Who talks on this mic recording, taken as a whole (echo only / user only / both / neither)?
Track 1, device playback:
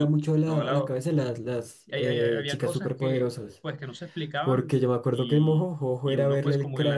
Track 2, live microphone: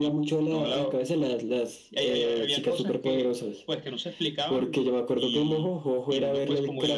echo only